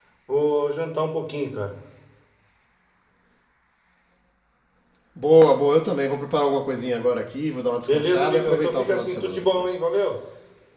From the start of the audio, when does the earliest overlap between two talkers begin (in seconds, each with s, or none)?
7.9 s